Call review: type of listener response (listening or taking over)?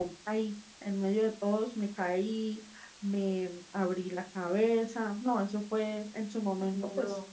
listening